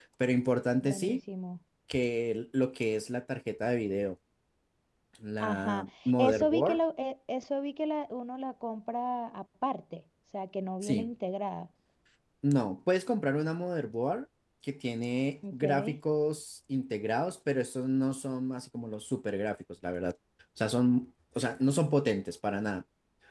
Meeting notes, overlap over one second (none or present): present